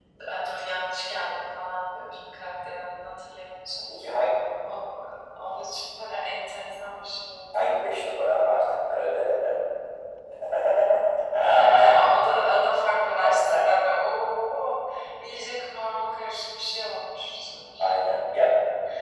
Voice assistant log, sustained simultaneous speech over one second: none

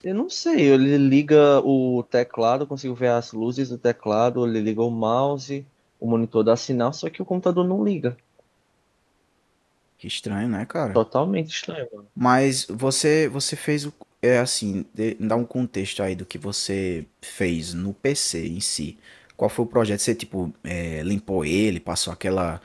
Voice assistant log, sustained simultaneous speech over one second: none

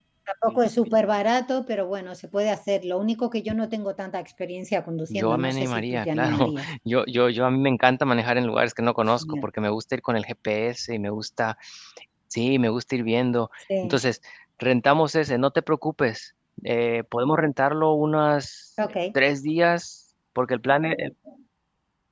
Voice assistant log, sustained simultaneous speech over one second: present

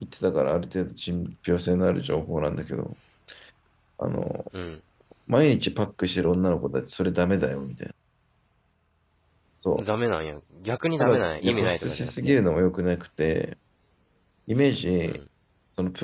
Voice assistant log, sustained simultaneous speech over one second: present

